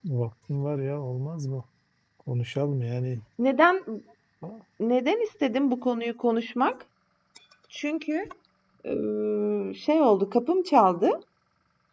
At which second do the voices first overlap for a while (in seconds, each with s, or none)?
none